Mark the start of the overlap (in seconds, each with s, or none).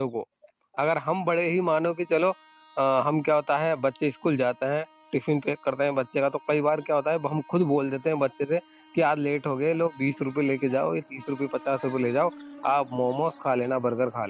none